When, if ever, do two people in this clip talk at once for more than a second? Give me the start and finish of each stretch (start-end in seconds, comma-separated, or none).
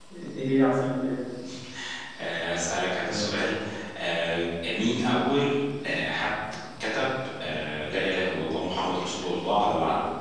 none